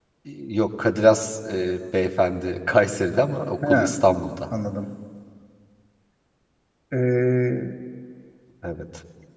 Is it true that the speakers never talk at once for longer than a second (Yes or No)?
Yes